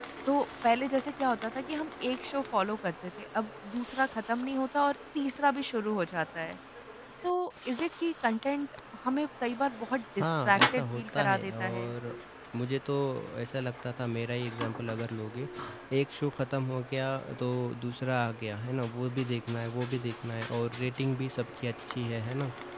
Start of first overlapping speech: 10 s

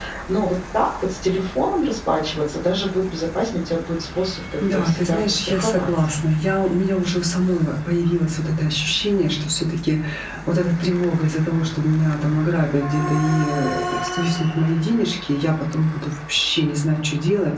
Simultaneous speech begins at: 5 s

